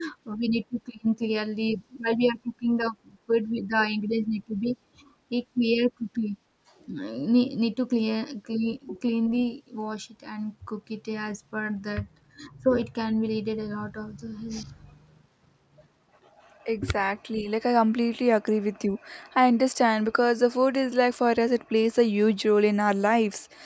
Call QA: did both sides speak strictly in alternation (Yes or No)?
Yes